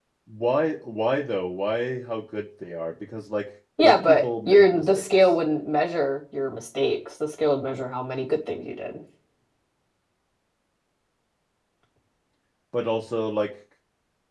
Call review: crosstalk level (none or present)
present